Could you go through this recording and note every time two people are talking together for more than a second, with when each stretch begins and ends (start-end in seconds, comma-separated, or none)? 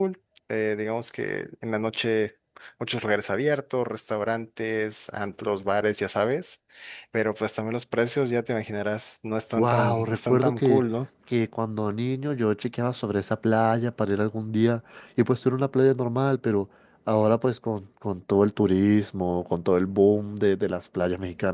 9.6-10.8